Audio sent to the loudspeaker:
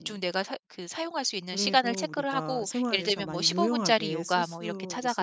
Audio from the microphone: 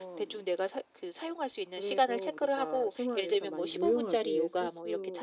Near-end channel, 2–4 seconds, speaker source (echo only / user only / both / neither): echo only